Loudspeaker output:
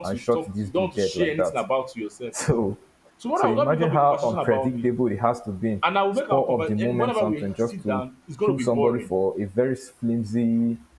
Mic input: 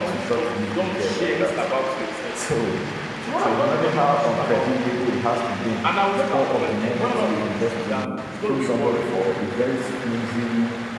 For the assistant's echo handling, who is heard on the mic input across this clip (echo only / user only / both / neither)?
echo only